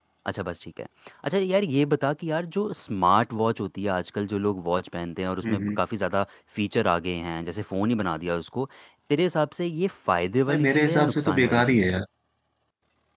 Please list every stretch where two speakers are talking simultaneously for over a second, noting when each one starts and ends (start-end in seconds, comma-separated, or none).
10.5-11.9